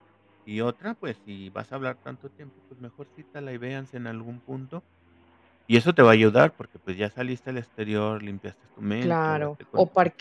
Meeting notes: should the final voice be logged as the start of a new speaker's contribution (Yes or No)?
Yes